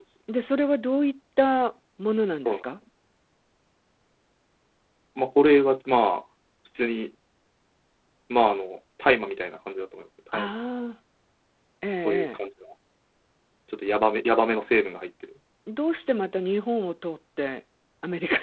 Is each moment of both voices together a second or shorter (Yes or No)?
Yes